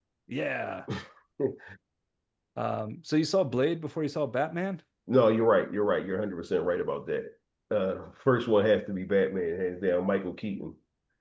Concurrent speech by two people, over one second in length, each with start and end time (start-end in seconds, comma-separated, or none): none